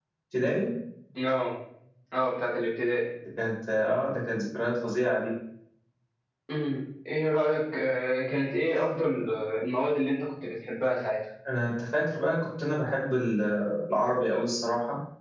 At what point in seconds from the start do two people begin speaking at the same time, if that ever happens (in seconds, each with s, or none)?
none